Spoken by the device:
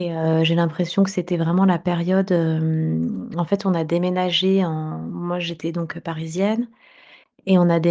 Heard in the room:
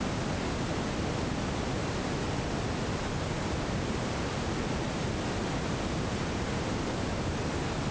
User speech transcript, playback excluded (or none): none